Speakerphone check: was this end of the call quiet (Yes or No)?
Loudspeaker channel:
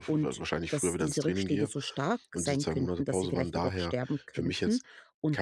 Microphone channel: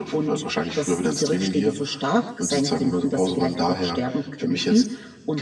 Yes